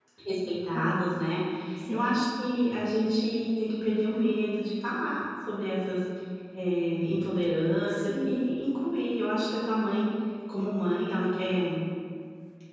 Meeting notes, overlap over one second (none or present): none